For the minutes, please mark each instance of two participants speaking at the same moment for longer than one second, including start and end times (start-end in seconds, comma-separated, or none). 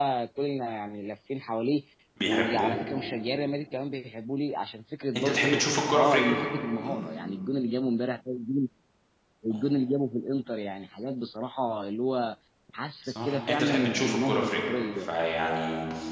13.0-15.1